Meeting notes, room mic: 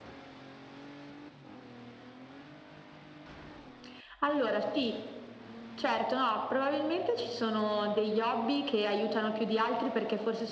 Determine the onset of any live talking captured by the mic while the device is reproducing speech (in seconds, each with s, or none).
none